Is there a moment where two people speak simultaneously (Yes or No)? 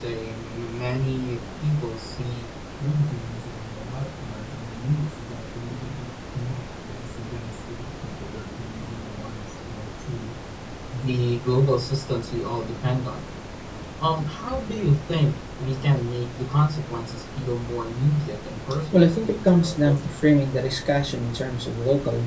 Yes